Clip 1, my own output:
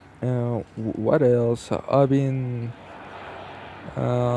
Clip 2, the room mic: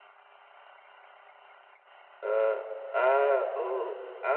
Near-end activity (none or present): present